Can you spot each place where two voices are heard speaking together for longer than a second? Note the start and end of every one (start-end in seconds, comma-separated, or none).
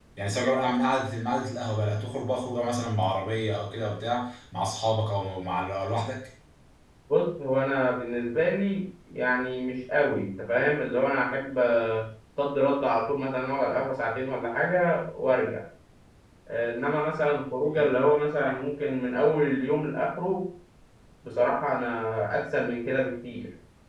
none